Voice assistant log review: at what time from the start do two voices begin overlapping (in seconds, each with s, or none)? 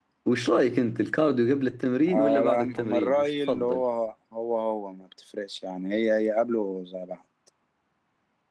2.1 s